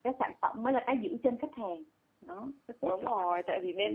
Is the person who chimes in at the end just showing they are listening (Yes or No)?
No